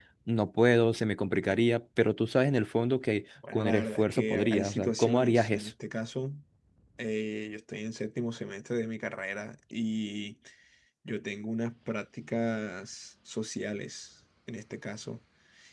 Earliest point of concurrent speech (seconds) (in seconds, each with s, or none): 3.4 s